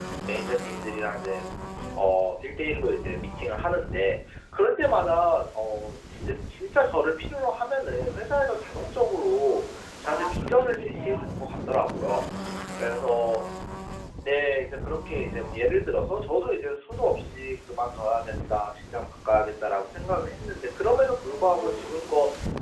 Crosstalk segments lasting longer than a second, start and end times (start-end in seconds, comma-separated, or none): 10.0-11.7